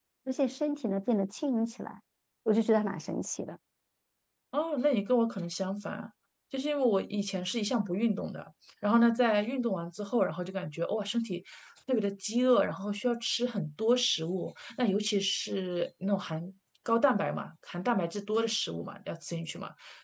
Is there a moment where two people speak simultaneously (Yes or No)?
No